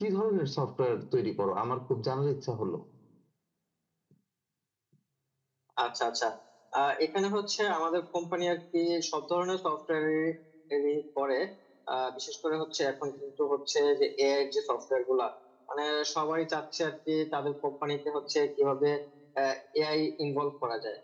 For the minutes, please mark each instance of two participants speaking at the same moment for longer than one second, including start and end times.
none

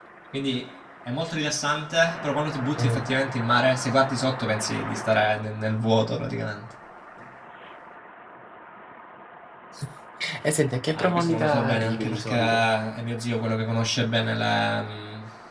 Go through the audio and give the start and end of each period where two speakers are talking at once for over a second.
10.9-12.7

